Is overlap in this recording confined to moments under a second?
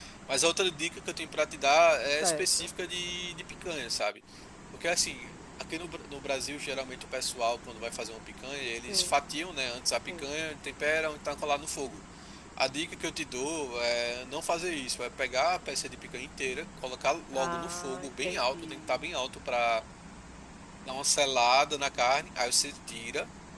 No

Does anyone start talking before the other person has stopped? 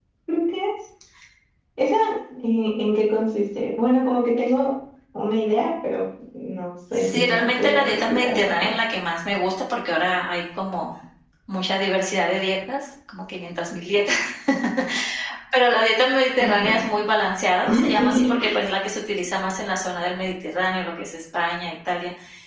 Yes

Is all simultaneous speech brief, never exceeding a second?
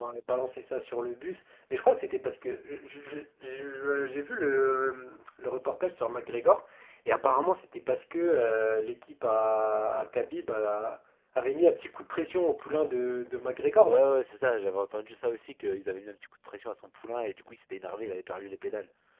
Yes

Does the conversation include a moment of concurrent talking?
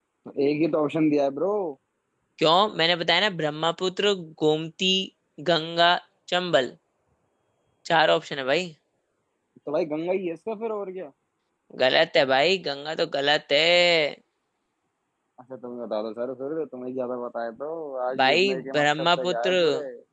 Yes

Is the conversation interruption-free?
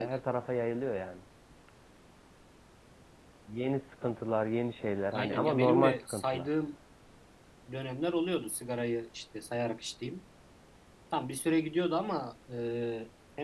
No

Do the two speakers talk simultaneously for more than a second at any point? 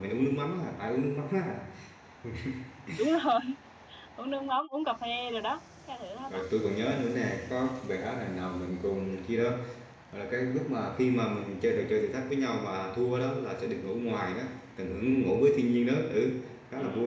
No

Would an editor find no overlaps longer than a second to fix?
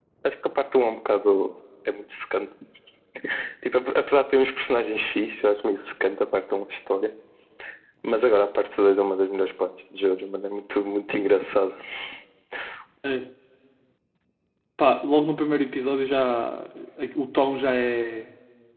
Yes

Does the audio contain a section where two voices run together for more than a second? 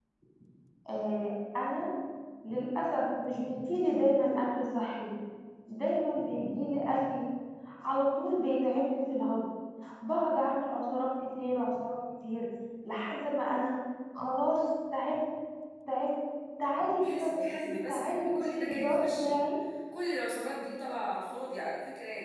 Yes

